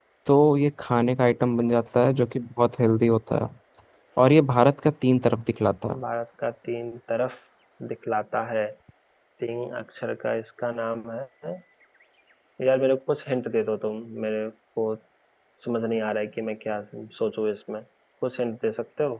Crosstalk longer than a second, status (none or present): none